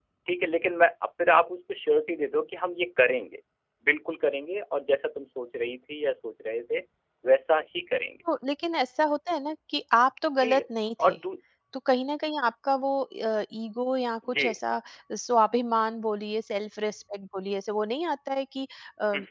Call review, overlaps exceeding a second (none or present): none